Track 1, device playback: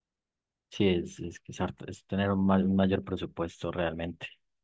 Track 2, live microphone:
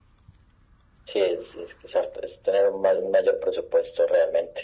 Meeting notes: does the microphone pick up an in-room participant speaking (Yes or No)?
No